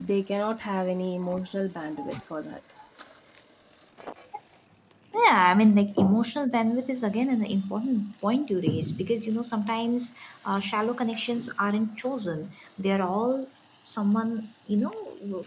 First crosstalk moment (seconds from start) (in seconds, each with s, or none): none